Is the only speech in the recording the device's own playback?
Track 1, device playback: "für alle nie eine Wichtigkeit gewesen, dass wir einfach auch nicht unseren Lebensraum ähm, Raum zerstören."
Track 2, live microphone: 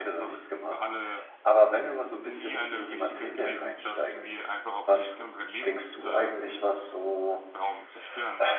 No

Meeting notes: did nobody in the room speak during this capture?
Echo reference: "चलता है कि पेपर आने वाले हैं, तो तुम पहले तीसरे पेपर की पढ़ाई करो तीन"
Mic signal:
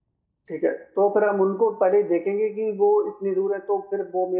No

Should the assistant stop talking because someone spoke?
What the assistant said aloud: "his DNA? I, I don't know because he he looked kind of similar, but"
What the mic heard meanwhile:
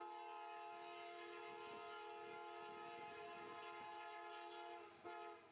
No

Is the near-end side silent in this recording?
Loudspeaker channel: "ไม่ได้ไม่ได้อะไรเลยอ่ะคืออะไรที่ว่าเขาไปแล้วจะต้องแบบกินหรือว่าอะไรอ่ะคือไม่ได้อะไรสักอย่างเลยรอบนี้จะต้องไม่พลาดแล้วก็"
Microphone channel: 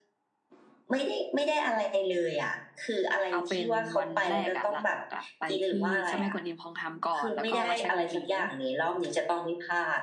No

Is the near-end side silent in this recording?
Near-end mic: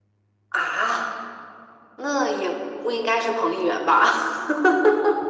Yes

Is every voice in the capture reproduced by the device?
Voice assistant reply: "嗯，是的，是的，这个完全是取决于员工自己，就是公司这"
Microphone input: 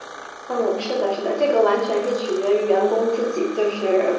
Yes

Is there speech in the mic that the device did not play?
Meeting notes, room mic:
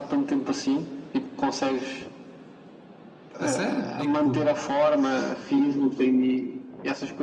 Yes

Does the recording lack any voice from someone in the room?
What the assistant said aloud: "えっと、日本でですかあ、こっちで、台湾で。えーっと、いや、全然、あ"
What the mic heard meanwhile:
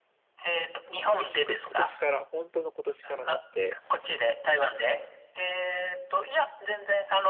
No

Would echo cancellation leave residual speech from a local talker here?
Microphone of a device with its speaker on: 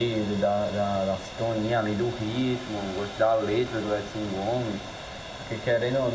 No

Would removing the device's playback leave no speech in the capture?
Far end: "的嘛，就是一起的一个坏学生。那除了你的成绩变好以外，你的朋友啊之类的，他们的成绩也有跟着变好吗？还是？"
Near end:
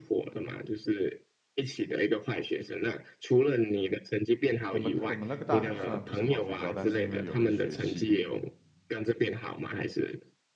No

